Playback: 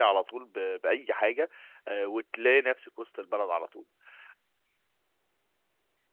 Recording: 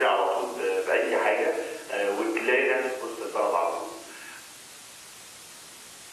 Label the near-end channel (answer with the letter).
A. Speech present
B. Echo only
B